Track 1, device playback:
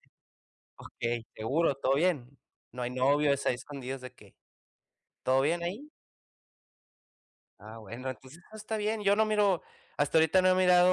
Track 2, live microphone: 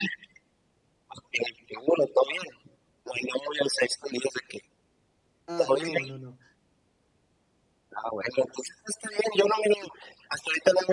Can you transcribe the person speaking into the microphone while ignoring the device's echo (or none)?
ah, no, no, no.